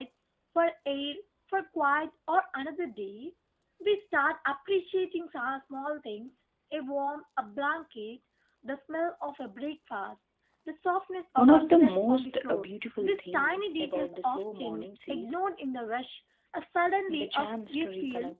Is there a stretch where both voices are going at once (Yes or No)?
Yes